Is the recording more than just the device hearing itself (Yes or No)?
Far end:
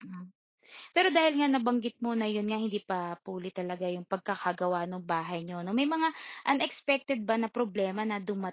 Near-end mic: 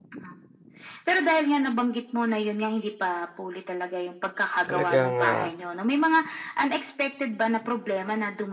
Yes